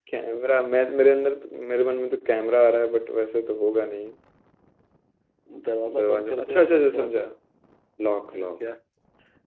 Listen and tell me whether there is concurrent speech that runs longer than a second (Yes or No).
Yes